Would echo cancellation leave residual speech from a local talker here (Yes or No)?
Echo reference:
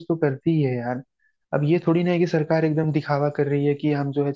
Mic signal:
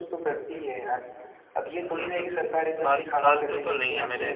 Yes